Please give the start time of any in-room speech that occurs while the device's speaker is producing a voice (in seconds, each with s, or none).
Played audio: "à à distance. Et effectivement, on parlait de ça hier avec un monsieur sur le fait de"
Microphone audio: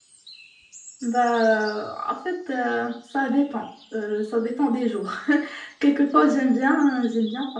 1.0 s